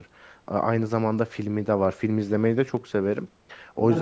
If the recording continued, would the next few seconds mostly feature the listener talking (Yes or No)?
No